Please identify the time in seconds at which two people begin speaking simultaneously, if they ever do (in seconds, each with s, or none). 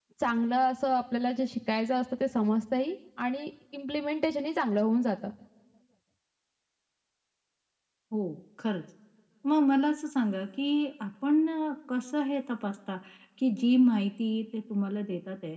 none